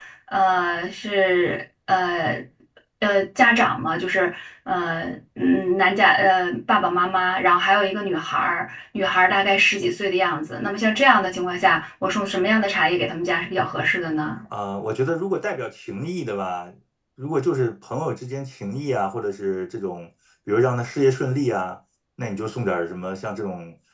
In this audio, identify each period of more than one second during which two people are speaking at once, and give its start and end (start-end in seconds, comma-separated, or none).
none